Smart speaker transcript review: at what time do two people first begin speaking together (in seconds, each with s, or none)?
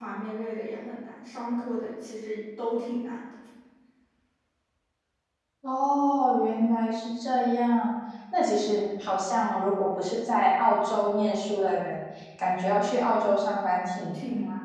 none